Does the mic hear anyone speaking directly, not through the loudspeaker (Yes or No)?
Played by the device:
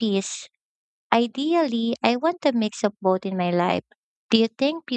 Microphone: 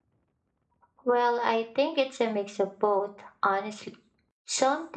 Yes